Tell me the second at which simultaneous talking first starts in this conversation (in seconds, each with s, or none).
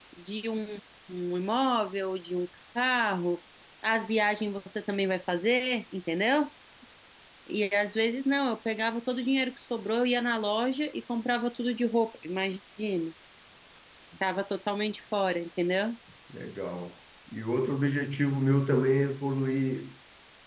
none